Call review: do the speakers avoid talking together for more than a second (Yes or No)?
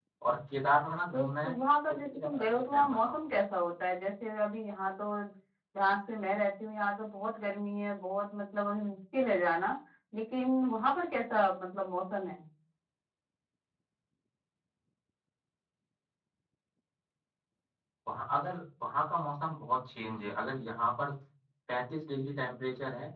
No